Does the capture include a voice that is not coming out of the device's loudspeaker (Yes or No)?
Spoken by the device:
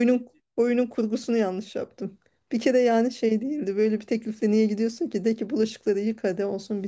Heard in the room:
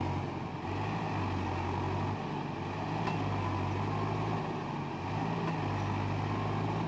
No